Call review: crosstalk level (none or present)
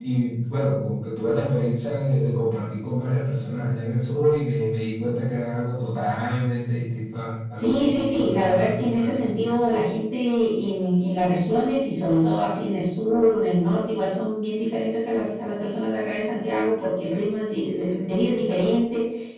present